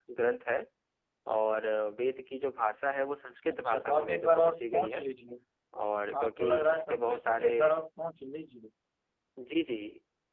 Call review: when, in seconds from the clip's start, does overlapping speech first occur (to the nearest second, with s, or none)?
3 s